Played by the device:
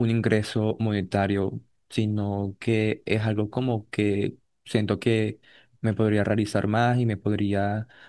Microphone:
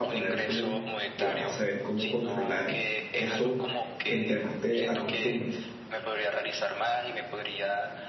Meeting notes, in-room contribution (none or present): present